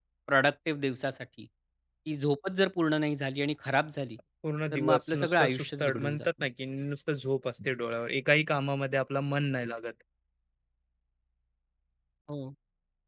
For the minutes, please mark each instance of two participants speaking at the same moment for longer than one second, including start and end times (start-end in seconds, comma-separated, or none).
4.7-6.3